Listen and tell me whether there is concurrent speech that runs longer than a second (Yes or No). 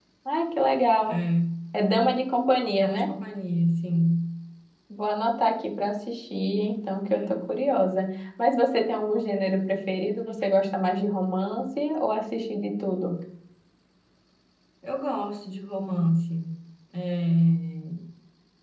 No